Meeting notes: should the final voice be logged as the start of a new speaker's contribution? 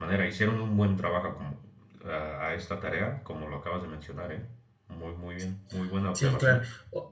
Yes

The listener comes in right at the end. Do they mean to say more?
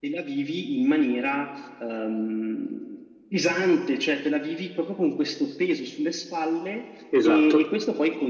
No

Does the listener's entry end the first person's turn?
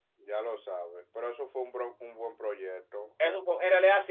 Yes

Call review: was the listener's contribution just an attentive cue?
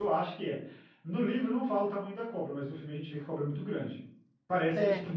Yes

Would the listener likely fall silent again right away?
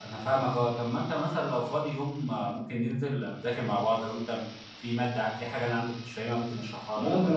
No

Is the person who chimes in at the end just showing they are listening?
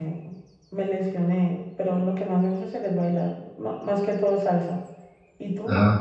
No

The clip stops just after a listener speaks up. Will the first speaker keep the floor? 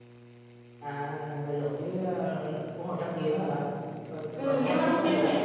No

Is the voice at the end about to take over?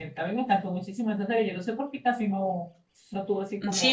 Yes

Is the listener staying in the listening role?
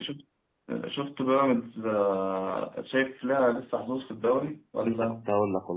No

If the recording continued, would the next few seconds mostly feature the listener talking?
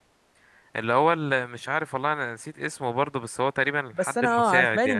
Yes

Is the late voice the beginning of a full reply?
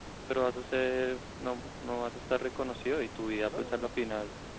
No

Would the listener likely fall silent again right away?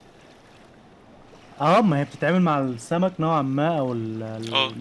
Yes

